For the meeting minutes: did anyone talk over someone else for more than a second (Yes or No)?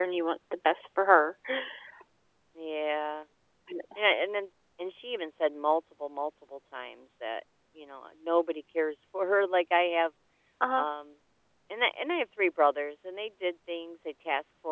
No